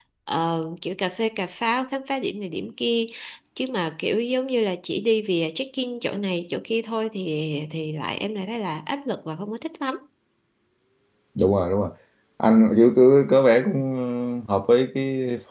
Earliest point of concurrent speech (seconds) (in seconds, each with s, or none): none